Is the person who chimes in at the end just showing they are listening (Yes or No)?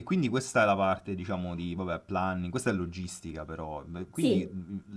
Yes